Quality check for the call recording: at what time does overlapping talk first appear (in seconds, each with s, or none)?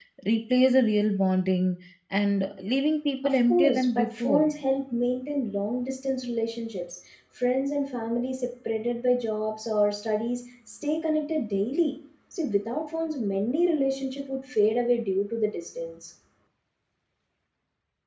3.2 s